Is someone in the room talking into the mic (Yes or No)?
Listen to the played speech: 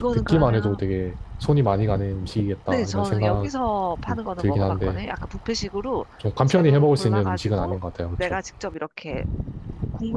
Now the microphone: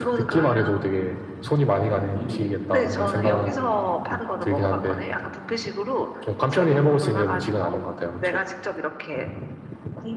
Yes